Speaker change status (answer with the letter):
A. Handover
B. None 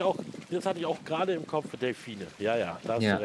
A